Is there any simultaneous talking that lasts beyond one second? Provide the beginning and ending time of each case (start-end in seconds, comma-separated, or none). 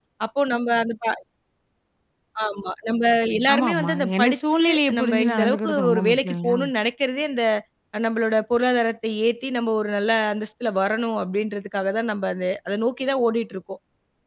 3.5-6.6